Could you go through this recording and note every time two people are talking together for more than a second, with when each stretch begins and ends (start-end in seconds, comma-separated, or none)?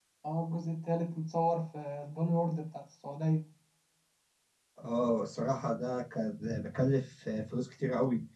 none